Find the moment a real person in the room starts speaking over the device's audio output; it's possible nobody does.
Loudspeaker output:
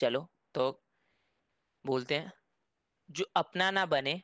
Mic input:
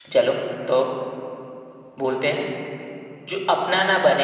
none

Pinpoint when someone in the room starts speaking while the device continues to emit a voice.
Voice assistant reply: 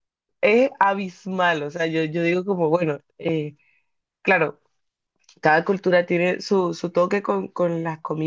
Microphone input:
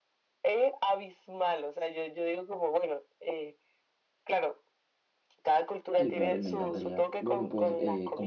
6.0 s

